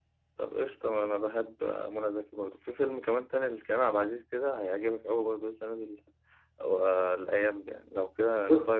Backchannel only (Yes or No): No